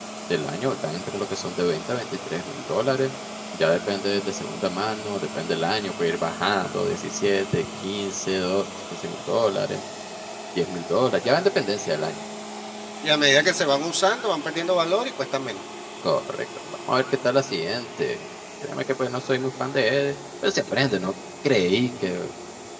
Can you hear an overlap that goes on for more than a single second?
No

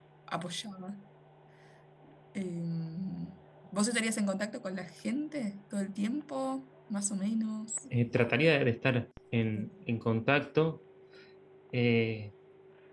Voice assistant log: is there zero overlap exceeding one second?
Yes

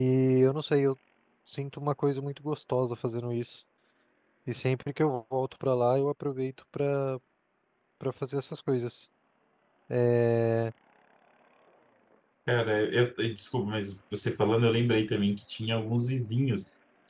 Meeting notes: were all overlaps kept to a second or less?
Yes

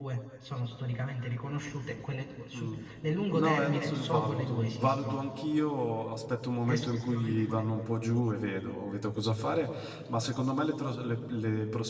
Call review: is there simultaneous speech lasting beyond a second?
Yes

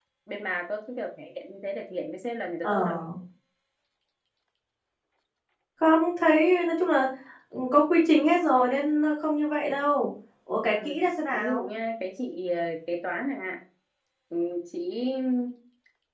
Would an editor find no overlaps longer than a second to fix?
Yes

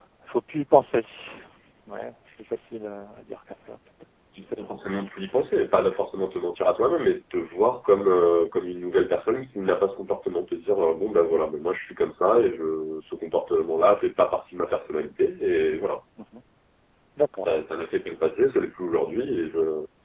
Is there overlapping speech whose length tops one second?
No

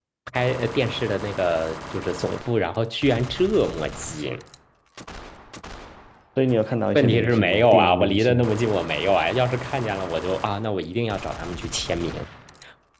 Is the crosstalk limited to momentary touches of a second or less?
No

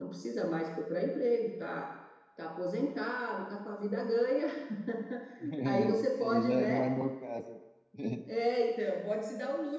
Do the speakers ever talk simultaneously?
Yes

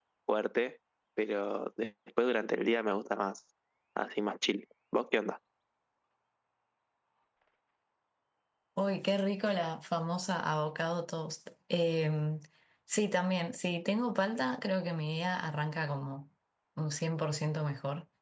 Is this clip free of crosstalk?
Yes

